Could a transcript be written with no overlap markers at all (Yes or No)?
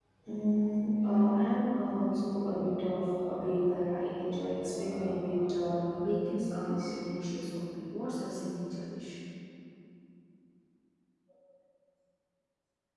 No